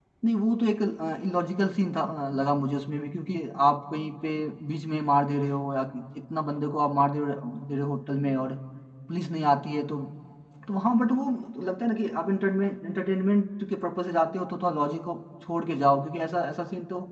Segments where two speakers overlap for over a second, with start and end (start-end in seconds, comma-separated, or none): none